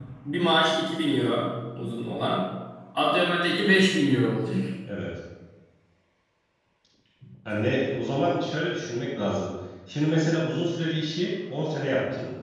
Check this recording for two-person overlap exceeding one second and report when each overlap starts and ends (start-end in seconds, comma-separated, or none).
none